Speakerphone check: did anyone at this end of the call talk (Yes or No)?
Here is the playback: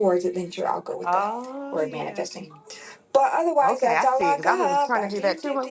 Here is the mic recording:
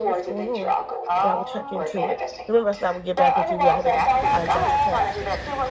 Yes